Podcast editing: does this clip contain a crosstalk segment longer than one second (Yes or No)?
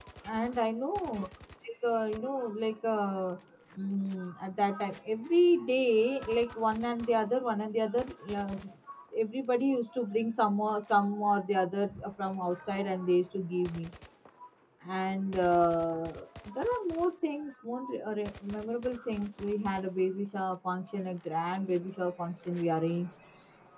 No